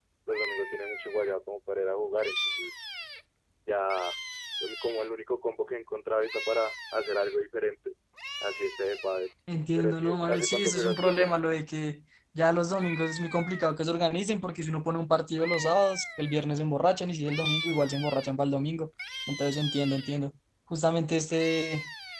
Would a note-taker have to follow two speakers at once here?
Yes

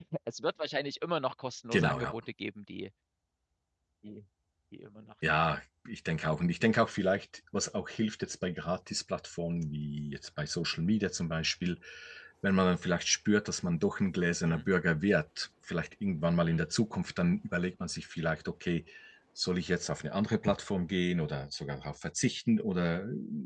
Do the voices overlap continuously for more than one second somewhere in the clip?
No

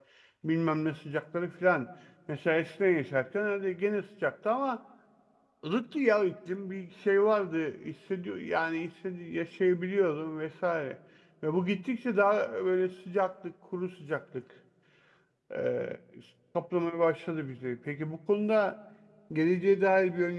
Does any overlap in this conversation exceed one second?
No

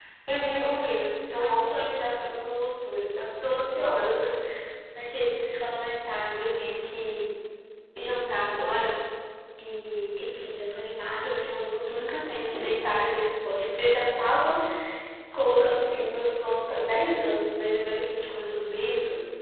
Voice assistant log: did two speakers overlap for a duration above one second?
No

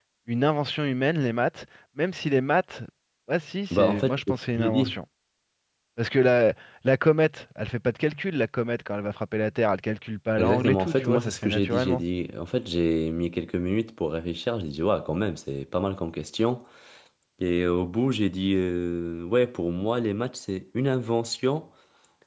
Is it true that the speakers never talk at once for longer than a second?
No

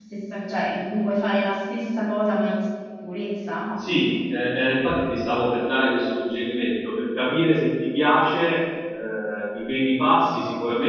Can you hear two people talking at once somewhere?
No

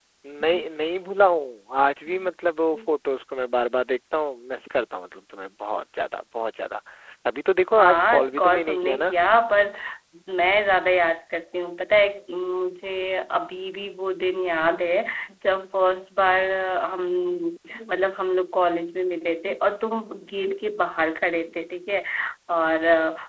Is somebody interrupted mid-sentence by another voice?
Yes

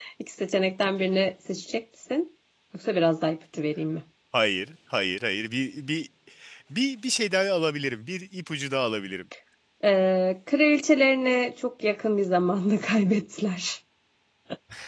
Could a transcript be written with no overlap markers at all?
Yes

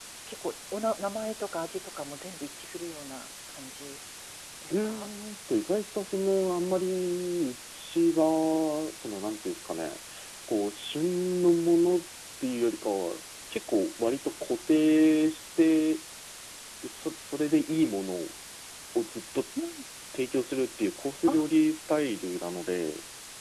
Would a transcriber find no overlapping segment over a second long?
Yes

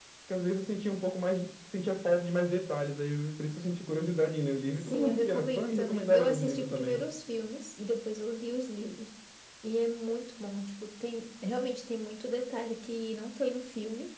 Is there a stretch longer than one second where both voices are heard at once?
Yes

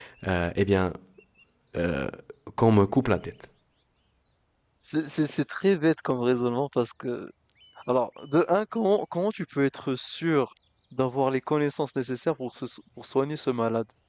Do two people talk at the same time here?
No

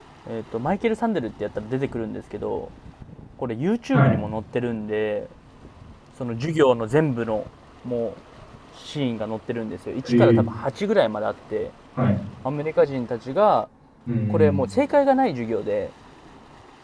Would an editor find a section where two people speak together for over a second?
No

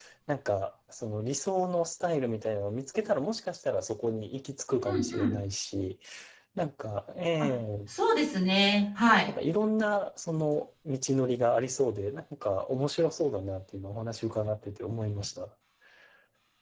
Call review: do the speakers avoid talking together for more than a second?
Yes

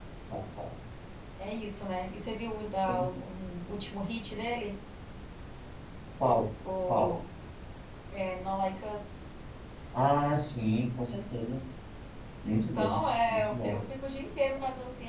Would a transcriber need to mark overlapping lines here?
Yes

